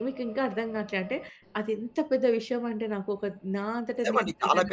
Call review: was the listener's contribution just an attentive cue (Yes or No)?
No